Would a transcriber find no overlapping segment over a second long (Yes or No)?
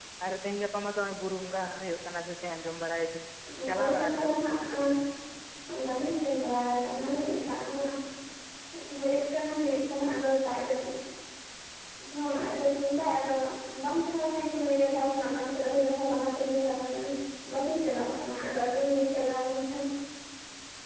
No